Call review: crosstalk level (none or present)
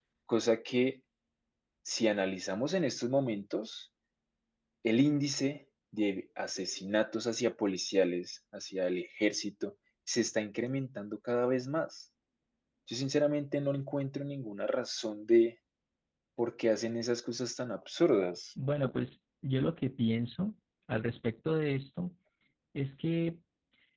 none